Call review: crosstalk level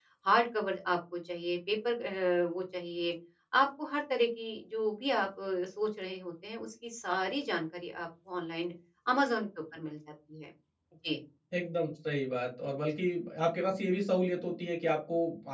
none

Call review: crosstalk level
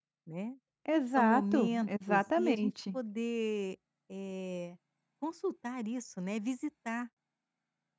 present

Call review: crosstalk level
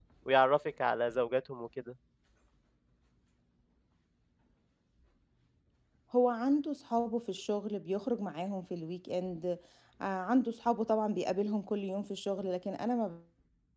none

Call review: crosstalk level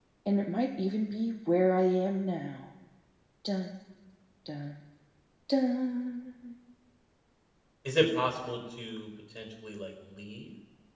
none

